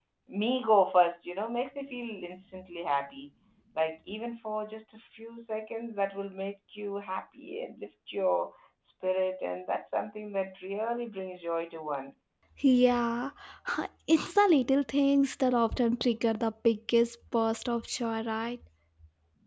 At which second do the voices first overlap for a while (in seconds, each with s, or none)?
none